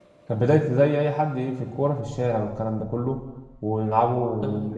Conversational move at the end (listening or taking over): listening